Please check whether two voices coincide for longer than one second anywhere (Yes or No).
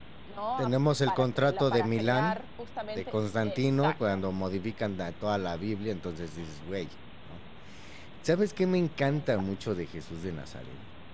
Yes